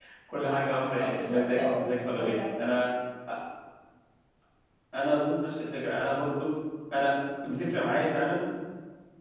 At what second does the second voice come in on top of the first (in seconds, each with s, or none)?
1.0 s